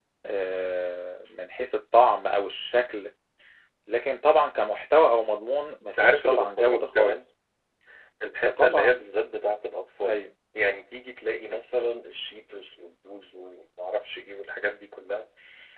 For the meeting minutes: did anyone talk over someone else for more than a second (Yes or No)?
Yes